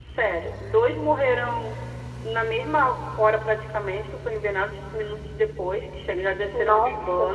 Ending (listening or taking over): listening